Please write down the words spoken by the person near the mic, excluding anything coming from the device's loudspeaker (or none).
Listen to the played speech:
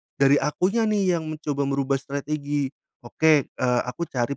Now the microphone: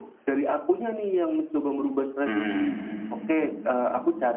Mhm.